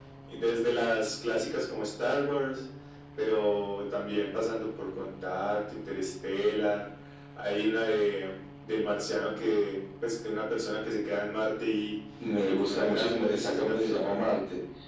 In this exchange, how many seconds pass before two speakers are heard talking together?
12 s

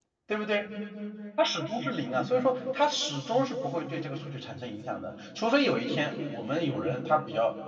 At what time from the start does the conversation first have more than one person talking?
none

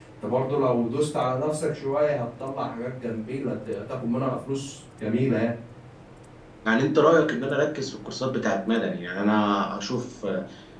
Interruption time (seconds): none

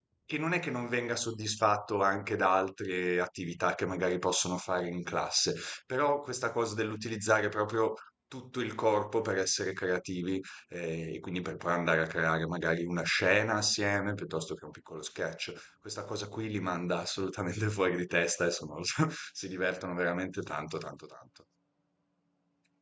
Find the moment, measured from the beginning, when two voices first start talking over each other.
none

